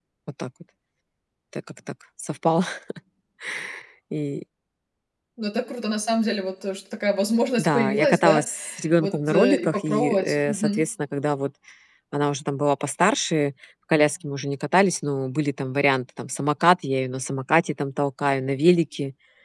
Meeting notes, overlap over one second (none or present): present